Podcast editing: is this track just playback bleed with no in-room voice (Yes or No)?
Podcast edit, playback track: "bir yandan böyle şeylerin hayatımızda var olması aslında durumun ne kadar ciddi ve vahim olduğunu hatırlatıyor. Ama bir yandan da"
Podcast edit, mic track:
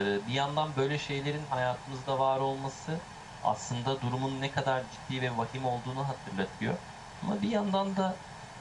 Yes